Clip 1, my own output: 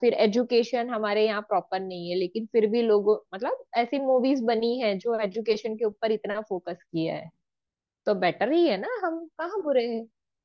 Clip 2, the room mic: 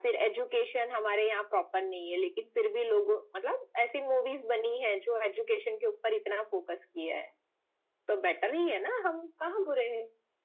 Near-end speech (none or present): none